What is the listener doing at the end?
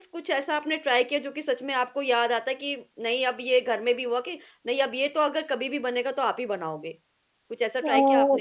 taking over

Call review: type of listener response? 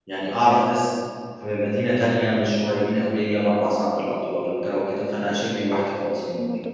taking over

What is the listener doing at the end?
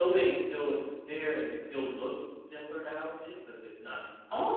taking over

